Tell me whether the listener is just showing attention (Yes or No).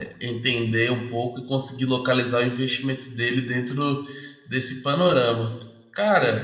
No